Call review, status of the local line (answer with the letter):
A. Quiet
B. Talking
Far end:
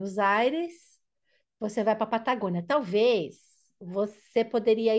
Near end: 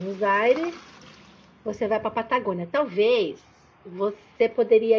A